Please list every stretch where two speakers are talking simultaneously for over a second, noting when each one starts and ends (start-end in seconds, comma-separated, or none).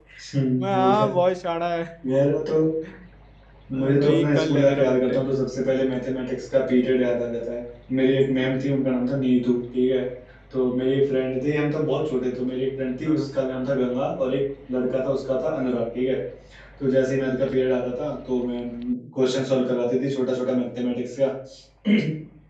3.7-5.2